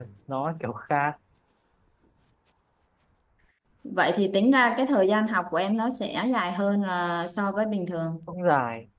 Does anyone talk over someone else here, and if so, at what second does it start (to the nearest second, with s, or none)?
none